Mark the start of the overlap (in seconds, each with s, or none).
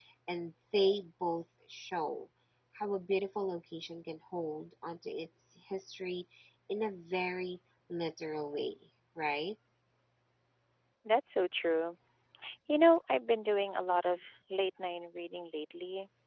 none